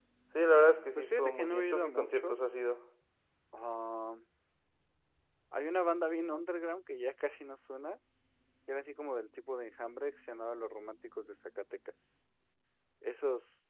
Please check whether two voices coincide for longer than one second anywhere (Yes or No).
Yes